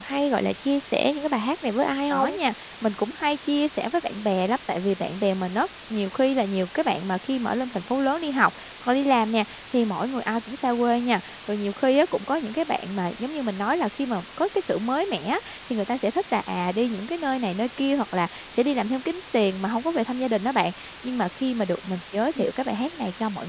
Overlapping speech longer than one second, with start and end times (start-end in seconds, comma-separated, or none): none